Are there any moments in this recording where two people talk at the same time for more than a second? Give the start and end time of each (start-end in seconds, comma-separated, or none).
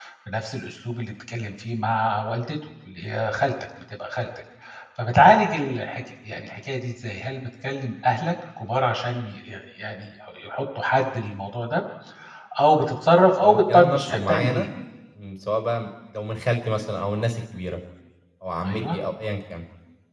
13.4-14.7